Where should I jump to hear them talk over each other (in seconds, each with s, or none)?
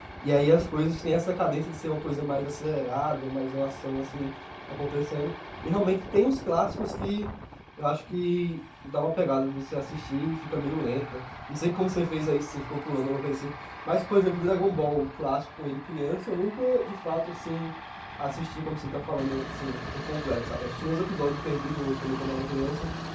none